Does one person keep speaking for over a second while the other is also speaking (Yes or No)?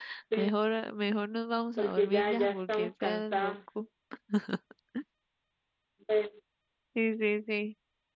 Yes